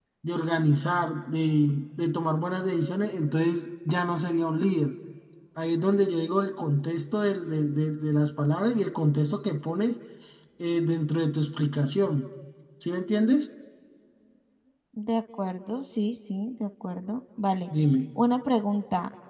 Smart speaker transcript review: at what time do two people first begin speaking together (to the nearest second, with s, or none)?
none